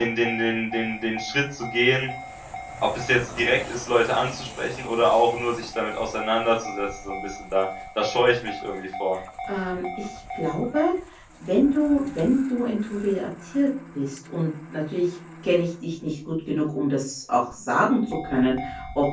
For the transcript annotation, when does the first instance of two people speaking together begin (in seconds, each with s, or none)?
none